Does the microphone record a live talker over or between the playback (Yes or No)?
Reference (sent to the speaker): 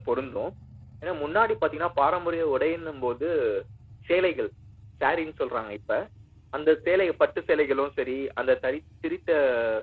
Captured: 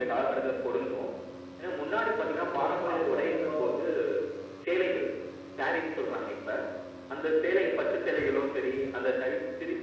Yes